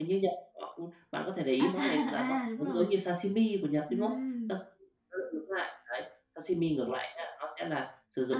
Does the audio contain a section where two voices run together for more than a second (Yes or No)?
Yes